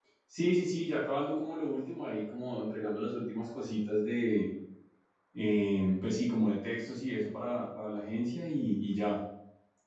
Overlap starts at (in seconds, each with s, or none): none